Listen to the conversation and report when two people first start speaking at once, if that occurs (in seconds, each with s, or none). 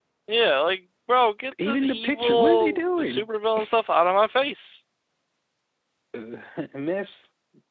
1.6 s